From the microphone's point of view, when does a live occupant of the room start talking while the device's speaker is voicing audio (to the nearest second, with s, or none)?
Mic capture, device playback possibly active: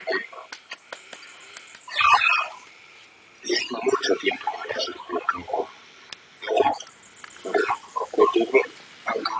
none